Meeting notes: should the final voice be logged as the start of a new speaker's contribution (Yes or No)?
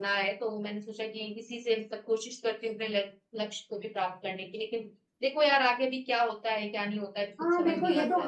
Yes